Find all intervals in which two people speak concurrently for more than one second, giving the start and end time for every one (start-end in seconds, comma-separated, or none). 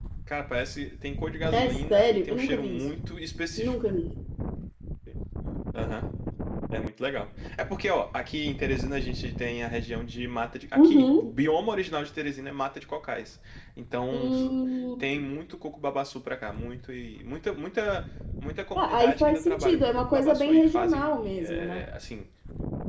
1.5-2.8, 18.8-21.8